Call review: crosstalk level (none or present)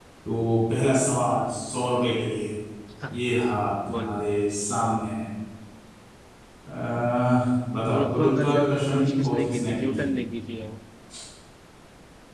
present